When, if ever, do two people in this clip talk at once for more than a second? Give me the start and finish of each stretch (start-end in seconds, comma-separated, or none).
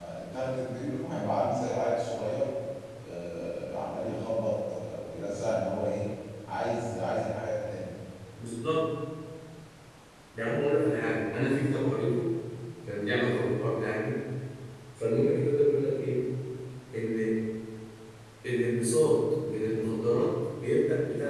none